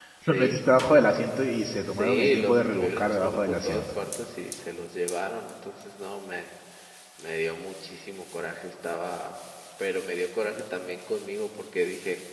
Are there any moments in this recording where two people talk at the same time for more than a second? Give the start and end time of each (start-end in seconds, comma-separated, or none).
1.8-3.9